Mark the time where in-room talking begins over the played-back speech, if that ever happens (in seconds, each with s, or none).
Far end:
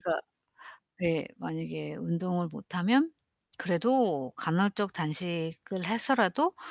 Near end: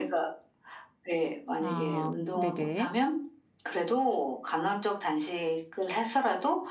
1.6 s